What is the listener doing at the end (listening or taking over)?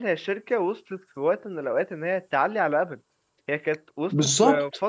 listening